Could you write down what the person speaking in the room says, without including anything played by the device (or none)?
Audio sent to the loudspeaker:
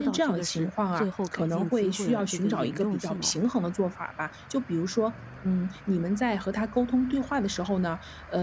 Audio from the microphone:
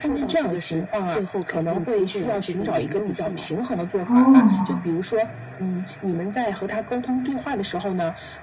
哦。